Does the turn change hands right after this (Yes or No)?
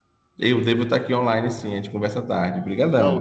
Yes